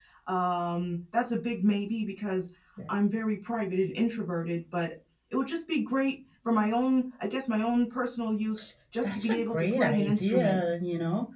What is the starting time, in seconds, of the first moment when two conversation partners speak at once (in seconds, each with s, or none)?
9.0 s